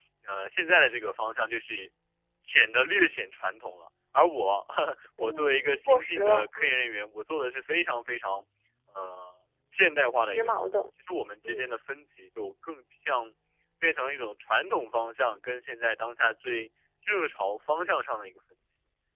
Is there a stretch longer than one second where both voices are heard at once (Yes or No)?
Yes